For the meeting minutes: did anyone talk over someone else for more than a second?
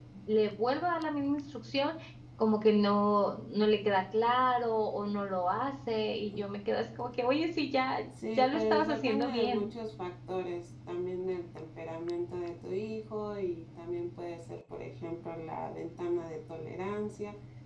Yes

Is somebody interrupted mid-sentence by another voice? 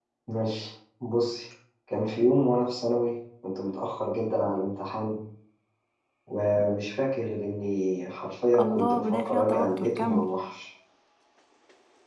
Yes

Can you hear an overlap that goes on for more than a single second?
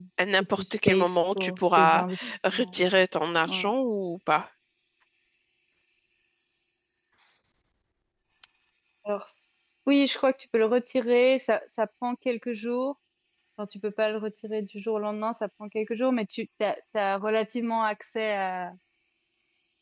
Yes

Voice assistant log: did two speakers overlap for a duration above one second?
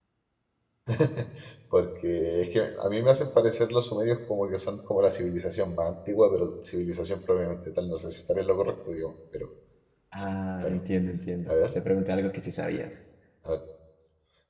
No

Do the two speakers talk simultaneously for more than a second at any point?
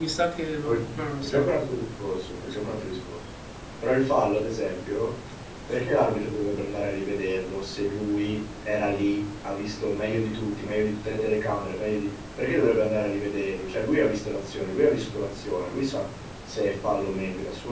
No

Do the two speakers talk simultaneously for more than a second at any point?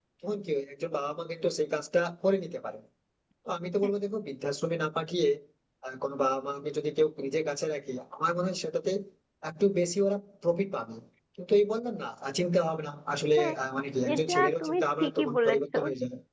Yes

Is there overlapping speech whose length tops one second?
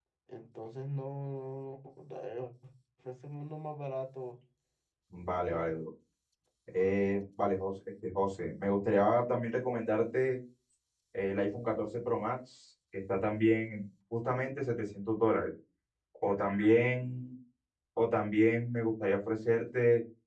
No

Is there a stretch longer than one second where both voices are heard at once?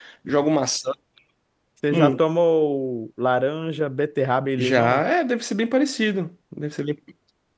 No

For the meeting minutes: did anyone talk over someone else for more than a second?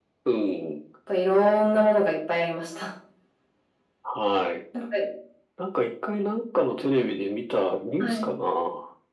No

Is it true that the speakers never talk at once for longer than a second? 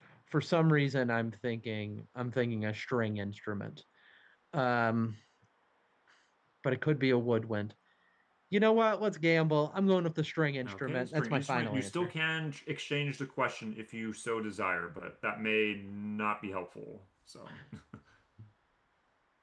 No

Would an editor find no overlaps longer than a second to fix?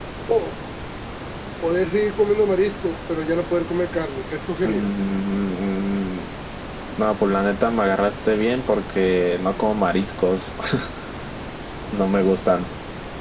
Yes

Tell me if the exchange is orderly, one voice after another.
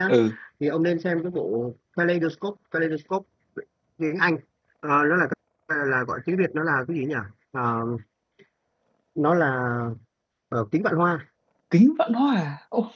Yes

